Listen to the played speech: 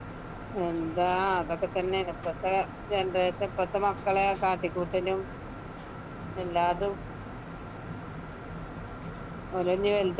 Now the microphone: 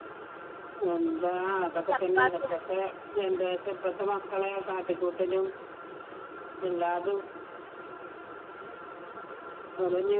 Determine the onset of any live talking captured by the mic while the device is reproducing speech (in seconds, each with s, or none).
1.4 s